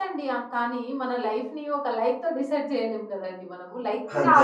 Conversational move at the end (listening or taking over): listening